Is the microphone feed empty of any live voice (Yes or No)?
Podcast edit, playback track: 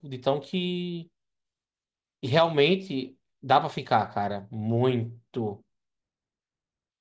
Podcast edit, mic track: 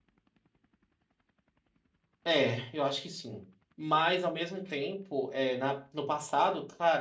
No